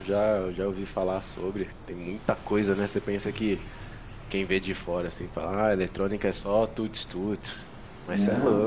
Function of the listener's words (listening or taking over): listening